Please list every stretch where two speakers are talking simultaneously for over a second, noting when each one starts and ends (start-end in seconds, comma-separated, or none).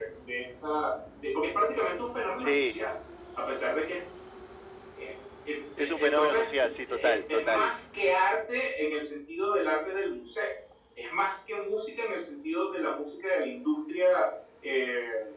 5.8-7.7